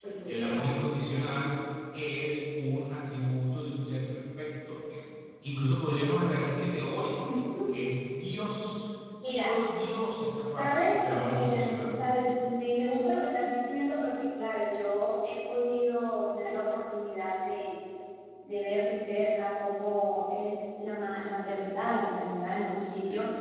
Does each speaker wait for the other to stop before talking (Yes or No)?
No